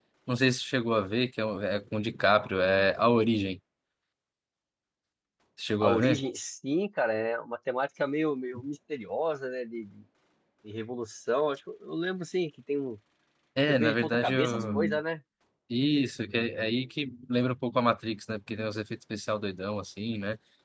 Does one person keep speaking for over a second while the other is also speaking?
Yes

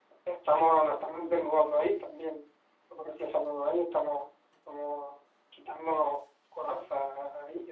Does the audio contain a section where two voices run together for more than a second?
No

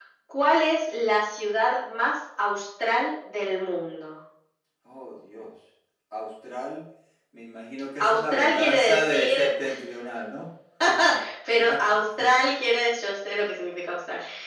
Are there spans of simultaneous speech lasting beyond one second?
Yes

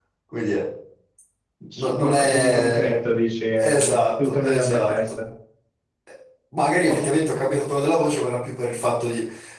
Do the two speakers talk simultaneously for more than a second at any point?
Yes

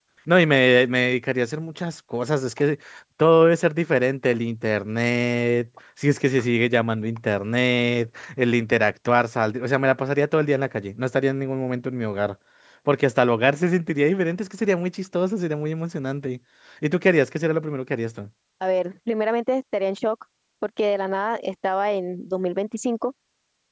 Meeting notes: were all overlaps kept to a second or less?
Yes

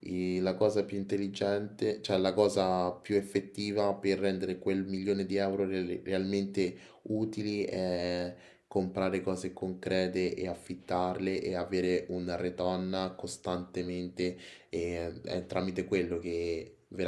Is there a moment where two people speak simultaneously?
No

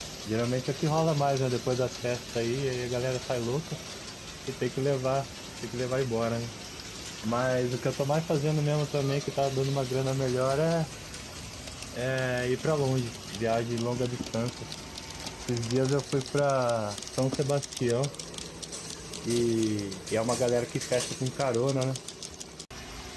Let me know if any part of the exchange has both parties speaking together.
No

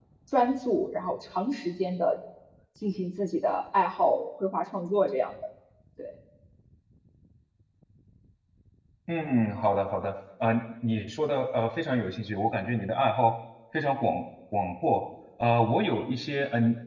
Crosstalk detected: No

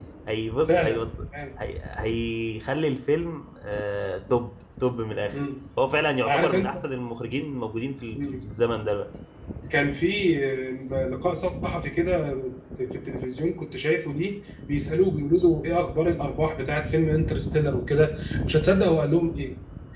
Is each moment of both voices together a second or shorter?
Yes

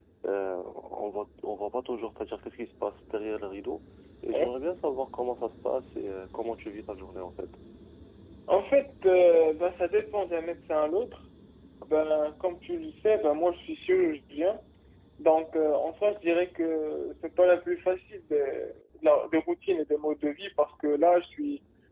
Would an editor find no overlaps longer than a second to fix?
Yes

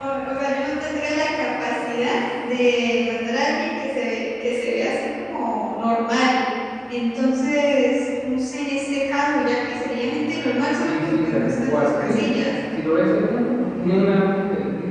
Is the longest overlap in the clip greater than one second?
Yes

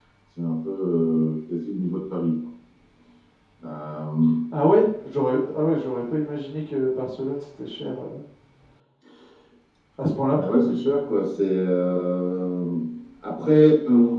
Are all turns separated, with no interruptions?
Yes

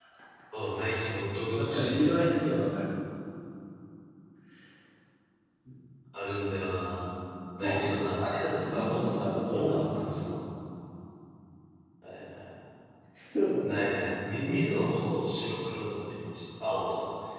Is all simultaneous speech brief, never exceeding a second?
No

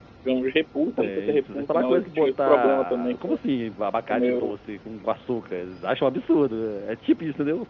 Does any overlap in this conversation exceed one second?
Yes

